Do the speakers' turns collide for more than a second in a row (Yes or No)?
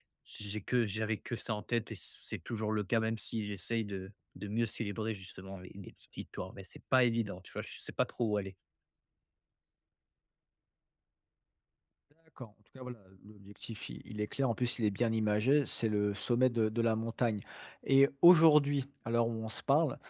No